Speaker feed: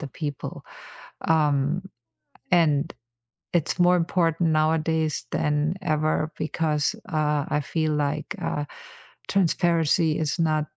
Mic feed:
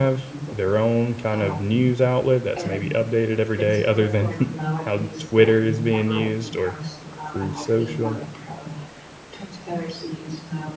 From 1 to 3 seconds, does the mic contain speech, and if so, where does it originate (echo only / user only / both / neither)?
both